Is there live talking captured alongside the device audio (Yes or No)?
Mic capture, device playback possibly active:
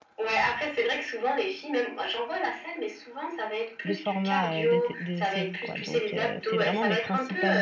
Yes